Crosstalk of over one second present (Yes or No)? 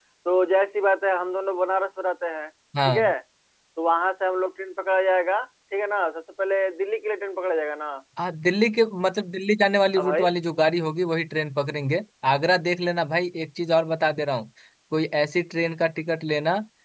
No